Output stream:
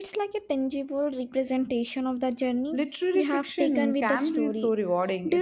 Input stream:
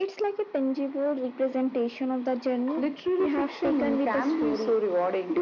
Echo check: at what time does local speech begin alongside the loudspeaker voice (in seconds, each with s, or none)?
none